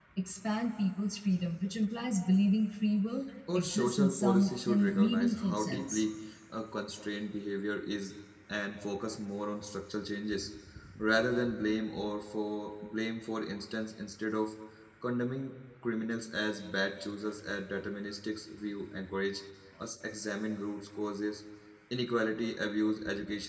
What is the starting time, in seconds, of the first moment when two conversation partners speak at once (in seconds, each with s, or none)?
3.5 s